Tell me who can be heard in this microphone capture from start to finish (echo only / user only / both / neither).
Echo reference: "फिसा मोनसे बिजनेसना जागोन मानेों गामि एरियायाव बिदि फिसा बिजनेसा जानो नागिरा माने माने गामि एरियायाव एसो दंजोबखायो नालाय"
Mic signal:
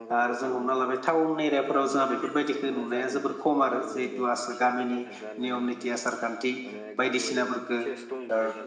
both